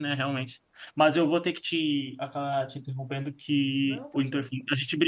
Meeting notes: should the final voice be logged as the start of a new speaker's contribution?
No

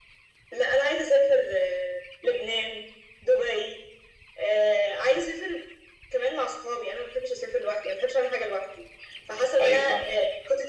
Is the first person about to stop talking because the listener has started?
No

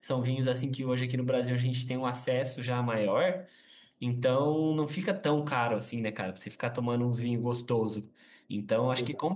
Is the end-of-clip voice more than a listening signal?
No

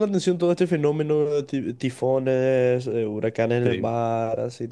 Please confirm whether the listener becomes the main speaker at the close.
No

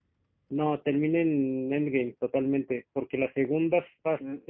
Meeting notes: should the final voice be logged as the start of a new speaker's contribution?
Yes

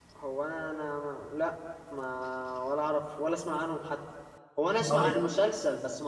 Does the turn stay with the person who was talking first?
Yes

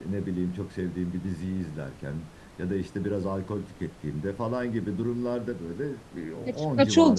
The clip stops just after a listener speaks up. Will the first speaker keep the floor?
No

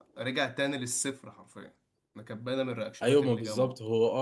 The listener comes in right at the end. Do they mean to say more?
Yes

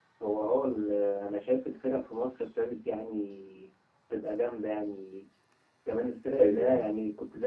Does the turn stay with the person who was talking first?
Yes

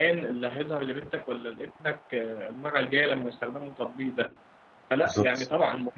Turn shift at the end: No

